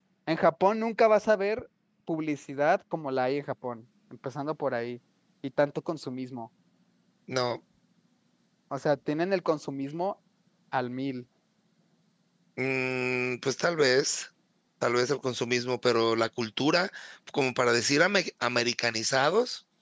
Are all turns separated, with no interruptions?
Yes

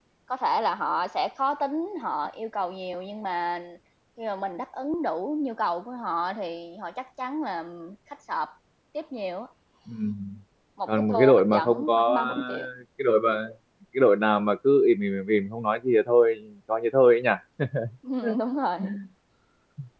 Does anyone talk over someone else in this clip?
Yes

